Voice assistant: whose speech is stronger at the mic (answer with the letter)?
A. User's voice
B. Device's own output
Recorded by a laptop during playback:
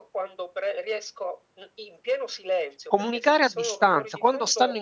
A